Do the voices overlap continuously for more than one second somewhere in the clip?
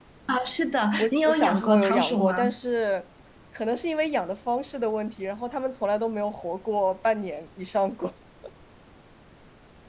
Yes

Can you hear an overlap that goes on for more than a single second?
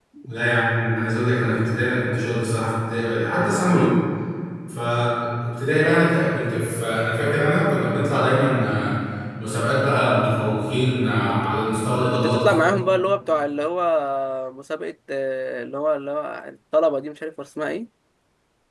No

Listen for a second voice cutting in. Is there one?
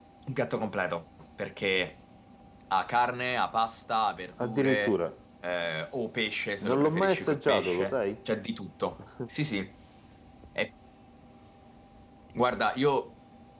Yes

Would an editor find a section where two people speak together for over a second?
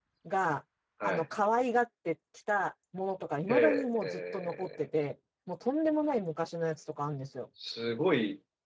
Yes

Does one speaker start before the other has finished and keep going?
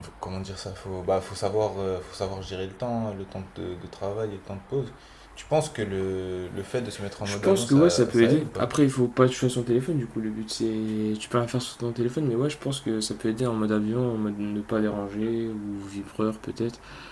Yes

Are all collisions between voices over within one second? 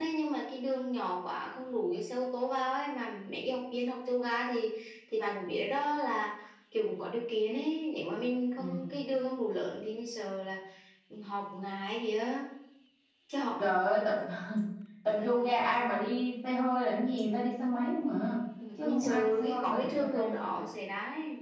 No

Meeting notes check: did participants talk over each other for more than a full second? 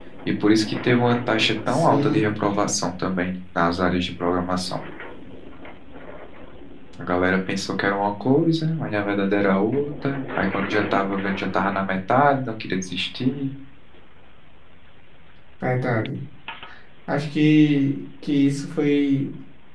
No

